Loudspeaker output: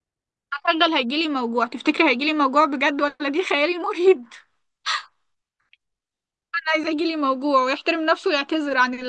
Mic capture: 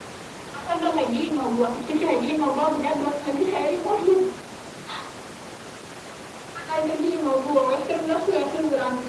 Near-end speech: none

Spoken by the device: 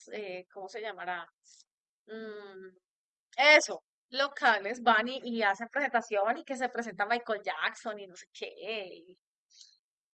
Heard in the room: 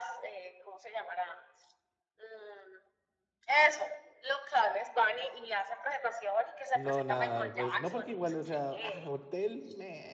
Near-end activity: present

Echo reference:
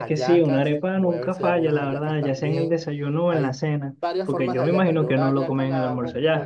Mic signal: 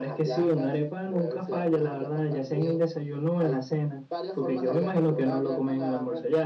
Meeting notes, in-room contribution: none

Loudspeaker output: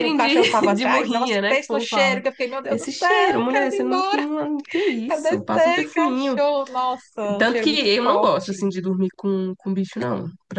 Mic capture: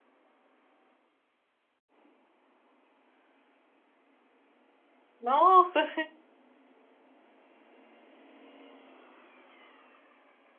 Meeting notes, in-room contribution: present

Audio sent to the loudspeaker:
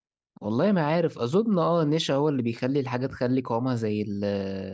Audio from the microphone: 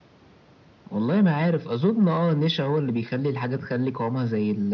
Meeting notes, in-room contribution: none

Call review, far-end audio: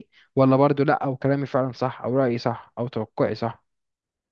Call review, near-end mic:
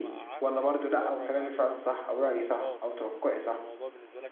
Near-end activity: present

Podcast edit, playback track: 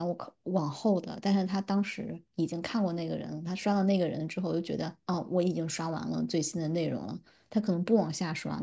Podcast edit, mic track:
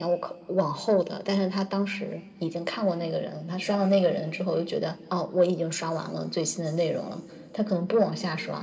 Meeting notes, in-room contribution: none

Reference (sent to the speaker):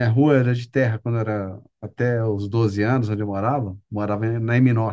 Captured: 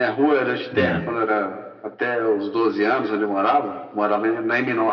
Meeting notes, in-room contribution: present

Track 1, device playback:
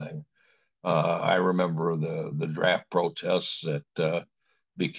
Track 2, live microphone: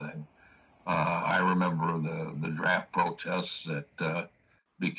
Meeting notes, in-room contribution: none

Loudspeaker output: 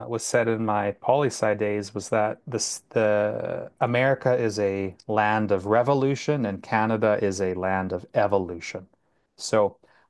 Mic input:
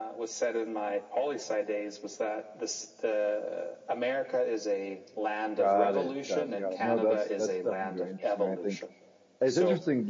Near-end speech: present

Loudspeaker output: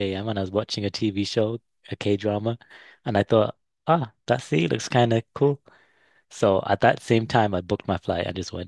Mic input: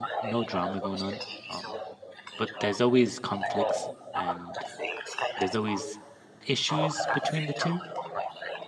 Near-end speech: present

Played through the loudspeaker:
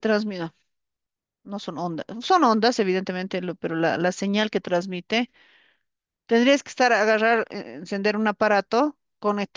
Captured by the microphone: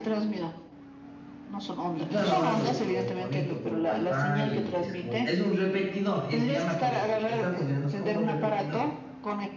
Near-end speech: present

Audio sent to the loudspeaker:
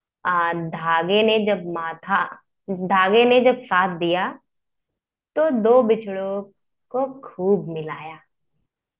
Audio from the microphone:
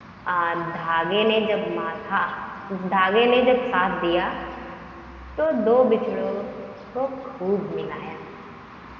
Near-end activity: none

